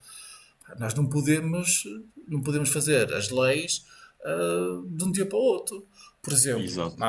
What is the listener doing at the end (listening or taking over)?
listening